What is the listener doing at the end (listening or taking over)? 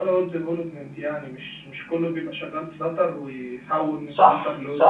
taking over